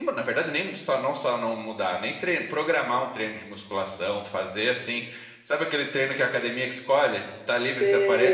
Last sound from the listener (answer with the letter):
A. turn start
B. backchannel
A